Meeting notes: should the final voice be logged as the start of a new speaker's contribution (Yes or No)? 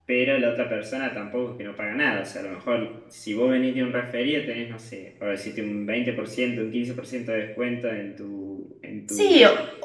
Yes